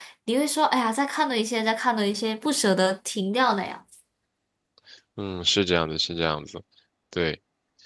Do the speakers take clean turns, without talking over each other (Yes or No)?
Yes